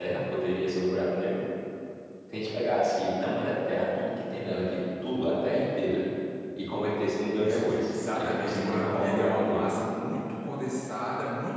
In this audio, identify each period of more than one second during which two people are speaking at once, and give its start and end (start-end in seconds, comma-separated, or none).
7.2-9.7